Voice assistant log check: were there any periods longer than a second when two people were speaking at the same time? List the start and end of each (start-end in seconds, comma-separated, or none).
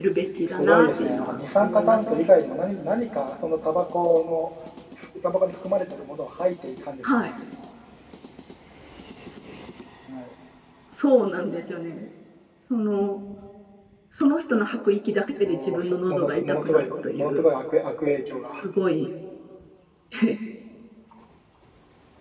0.6-2.3, 15.4-17.4